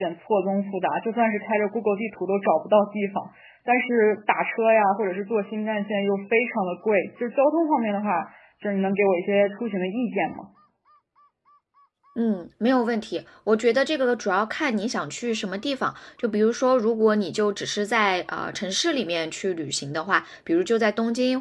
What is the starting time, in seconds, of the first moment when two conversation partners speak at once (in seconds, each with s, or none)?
none